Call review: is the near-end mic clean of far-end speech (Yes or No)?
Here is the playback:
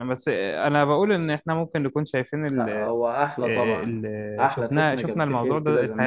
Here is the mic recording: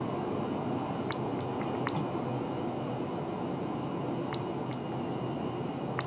Yes